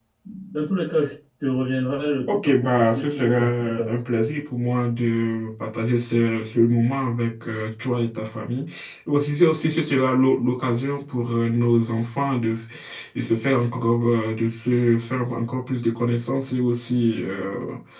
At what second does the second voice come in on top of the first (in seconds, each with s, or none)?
2.3 s